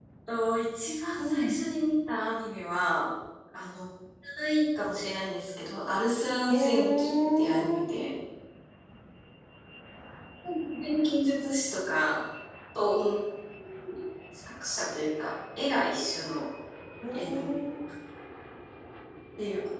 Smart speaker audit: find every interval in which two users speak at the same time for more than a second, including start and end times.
6.5-7.9

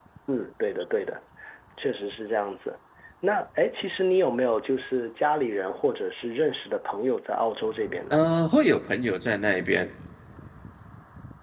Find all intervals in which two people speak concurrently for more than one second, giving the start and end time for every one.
none

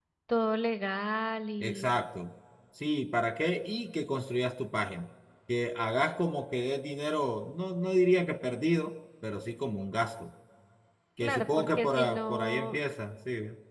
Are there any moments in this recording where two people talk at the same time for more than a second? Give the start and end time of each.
11.2-12.8

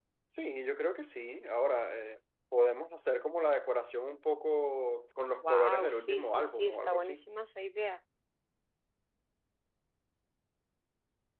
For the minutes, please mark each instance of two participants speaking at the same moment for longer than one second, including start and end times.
5.4-7.2

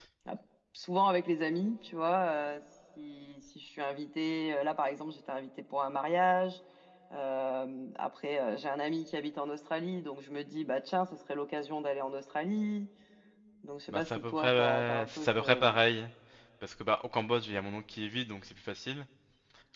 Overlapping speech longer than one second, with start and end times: 13.9-15.8

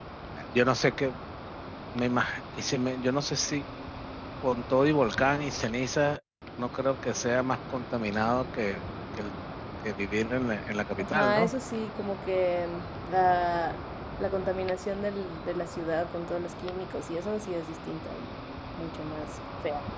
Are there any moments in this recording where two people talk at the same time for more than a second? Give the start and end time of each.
none

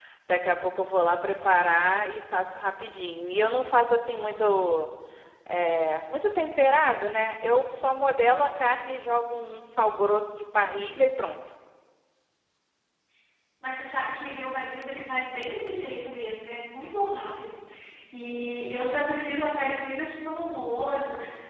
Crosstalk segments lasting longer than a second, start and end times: none

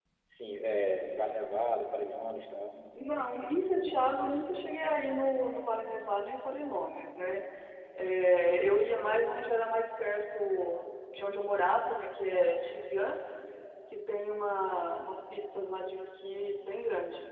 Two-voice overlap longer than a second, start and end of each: none

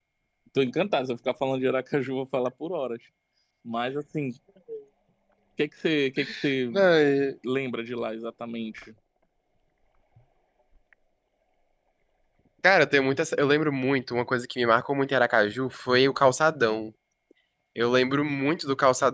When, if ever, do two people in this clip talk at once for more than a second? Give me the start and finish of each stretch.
none

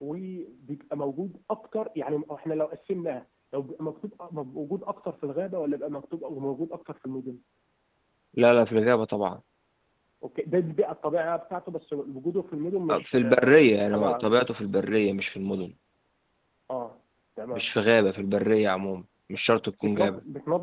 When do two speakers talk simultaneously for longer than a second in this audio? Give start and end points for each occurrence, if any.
12.9-14.3

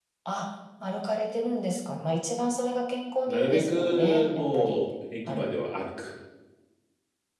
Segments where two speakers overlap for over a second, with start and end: 3.3-4.8

